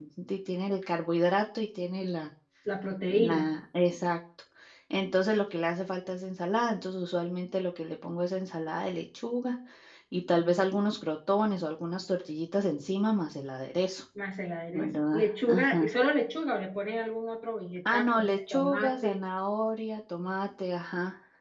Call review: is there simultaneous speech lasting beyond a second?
Yes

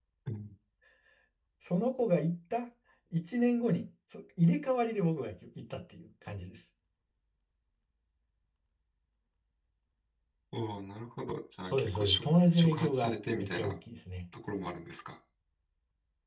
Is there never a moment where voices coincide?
No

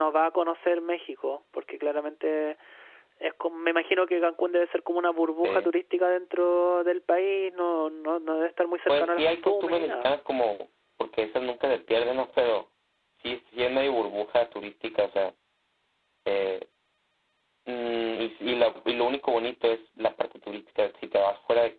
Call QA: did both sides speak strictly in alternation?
No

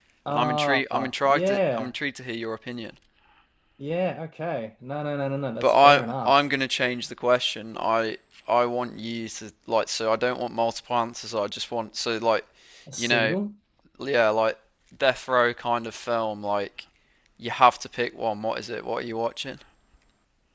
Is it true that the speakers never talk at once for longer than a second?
No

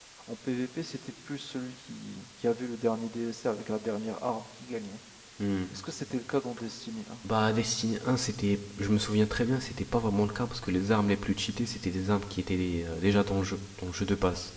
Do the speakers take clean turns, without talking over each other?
Yes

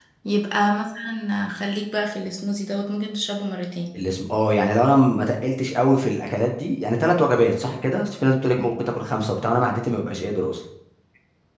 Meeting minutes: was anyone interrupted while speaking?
No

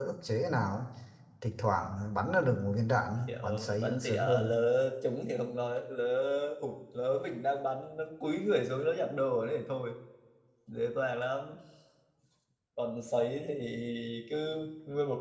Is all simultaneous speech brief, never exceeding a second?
No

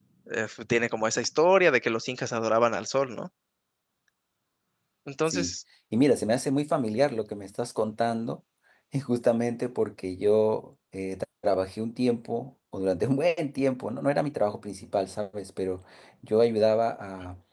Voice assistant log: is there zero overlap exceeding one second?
Yes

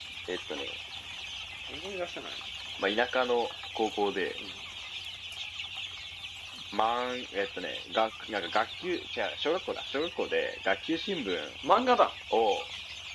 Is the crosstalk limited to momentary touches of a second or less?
Yes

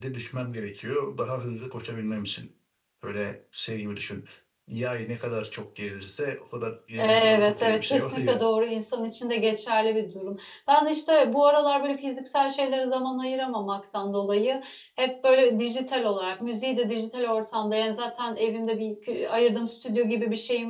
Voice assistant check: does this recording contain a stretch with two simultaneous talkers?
Yes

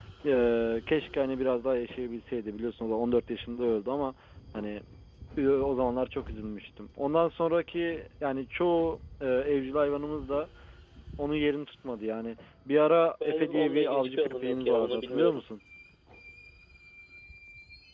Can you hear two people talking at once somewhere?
Yes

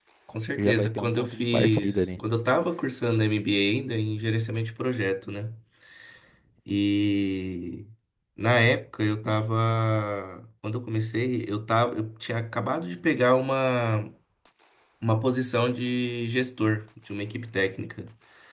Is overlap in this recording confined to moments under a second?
No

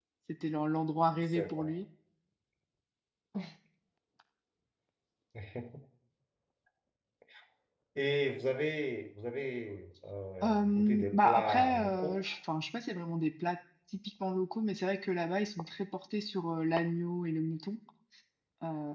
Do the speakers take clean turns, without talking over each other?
No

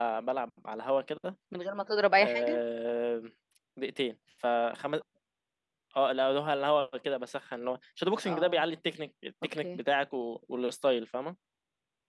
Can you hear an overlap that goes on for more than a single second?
No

